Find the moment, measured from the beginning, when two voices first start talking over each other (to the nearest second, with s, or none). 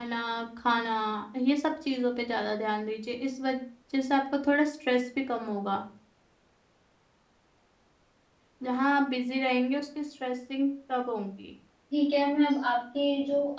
none